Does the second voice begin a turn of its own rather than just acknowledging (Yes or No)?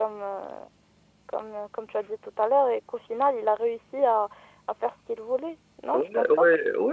Yes